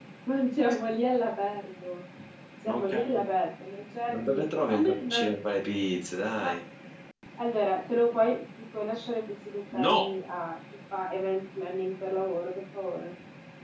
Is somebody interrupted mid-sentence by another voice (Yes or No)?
Yes